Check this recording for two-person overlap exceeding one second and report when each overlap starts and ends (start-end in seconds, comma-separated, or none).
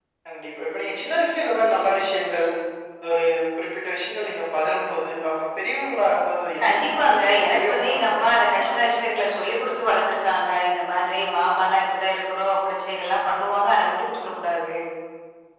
6.6-9.0